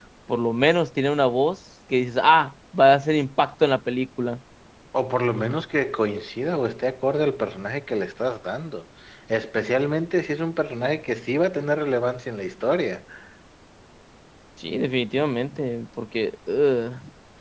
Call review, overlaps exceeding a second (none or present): none